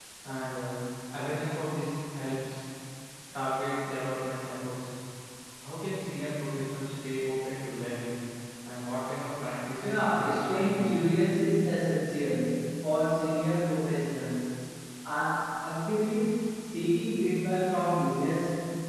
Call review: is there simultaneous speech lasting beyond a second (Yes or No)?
Yes